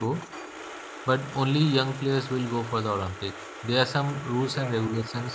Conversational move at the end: listening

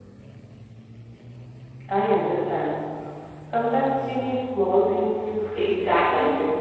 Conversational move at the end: taking over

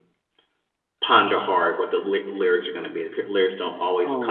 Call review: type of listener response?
listening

